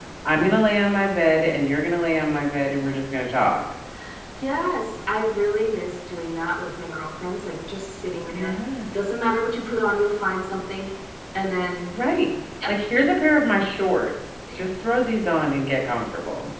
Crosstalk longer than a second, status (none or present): none